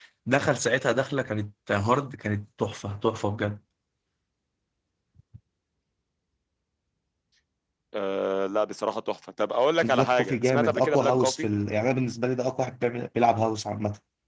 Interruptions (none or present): present